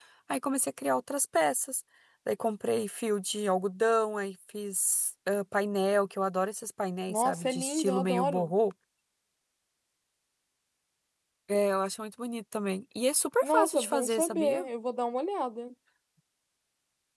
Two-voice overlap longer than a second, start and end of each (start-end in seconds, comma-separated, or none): 7.1-8.5, 13.4-14.6